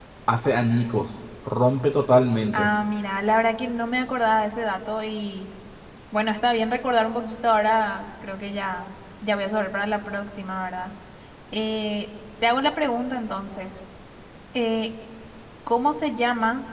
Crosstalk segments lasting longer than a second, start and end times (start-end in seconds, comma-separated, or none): none